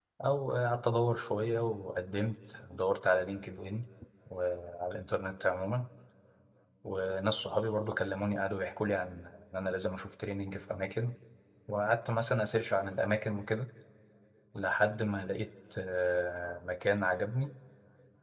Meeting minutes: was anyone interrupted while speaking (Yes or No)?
No